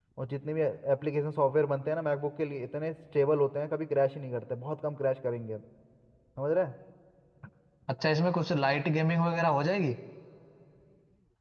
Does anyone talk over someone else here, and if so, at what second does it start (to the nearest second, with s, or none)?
none